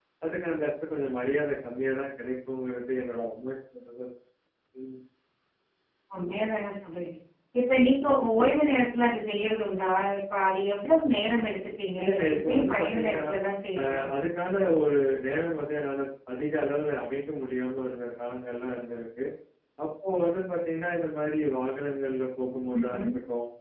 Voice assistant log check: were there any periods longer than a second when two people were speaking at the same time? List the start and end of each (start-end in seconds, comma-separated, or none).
12.0-13.2